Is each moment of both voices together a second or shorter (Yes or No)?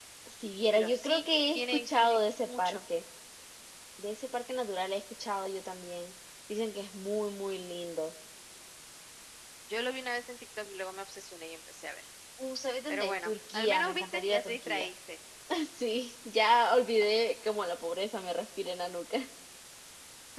No